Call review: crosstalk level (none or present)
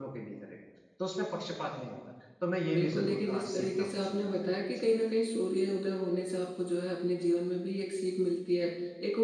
present